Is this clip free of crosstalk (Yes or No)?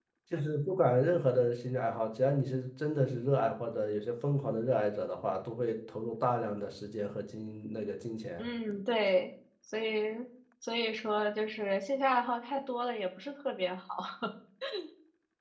Yes